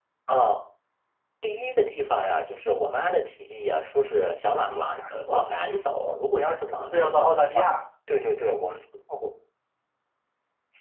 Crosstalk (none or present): present